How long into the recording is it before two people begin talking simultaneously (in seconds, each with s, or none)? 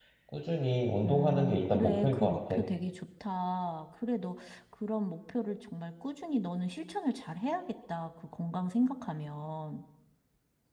1.0 s